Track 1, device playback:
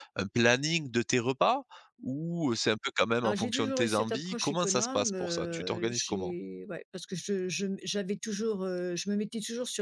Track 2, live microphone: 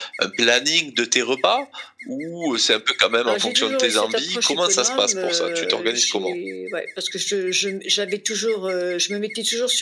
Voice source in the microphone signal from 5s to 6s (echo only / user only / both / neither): echo only